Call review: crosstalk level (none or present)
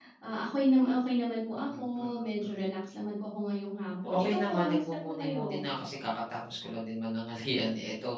present